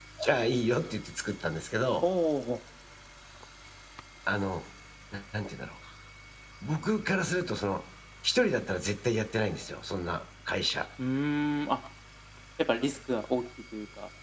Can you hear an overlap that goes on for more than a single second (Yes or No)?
No